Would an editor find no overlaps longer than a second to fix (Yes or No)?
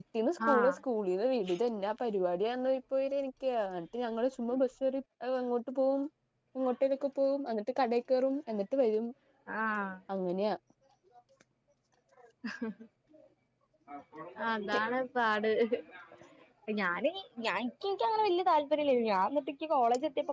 Yes